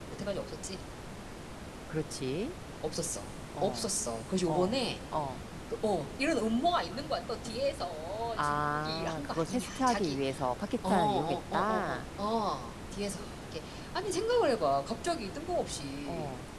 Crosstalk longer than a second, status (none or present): present